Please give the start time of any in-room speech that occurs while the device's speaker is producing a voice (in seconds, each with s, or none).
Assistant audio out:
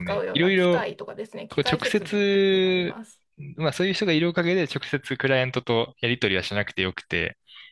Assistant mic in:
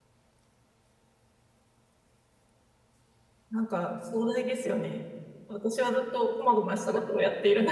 3.5 s